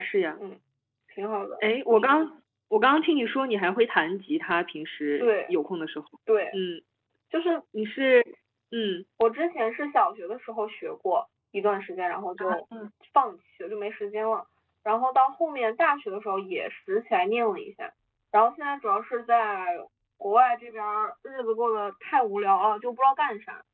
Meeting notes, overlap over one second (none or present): none